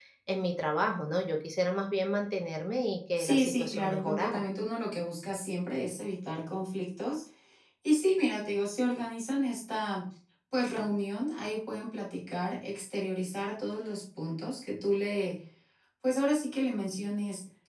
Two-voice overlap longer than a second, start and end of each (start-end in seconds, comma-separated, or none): 3.2-4.4